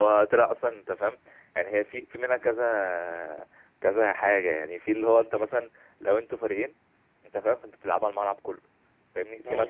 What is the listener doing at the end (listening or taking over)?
listening